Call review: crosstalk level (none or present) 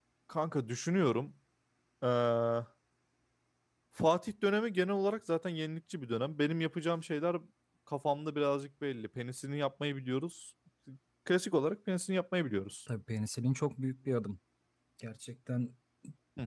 none